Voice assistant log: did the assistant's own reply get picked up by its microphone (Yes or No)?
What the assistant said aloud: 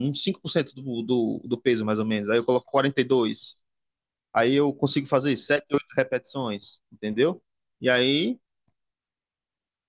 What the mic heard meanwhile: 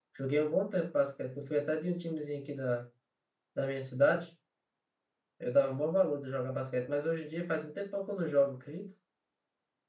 No